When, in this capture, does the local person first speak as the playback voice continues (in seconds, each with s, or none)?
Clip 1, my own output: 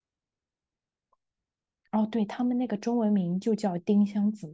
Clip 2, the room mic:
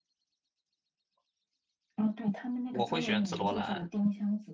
2.7 s